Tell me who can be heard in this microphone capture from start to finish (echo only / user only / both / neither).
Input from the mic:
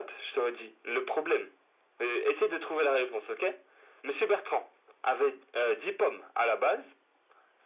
echo only